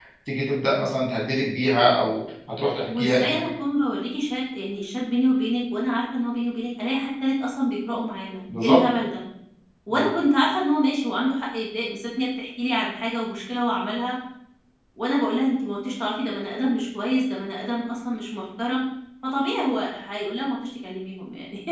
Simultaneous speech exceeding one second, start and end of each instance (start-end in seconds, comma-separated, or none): none